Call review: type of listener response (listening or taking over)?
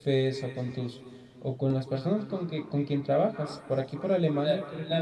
taking over